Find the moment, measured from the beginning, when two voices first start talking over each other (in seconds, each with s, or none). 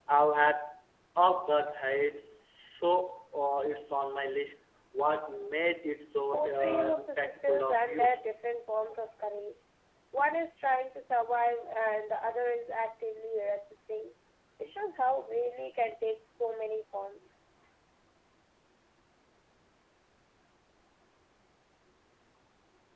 6.3 s